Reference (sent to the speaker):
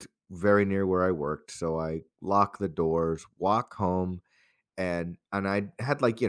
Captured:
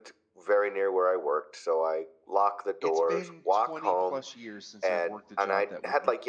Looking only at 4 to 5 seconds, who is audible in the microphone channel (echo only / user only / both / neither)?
both